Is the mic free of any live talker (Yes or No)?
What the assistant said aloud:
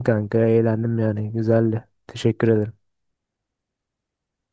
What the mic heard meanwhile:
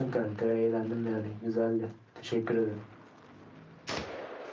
Yes